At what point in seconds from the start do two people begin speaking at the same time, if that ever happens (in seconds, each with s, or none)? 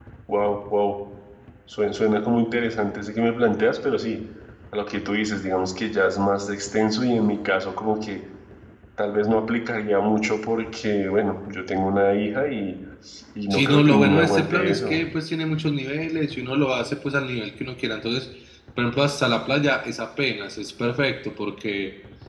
13.5 s